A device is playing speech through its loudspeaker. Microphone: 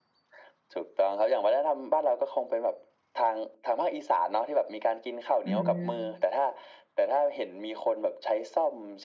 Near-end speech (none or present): present